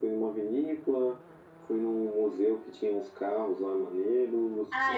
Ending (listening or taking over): taking over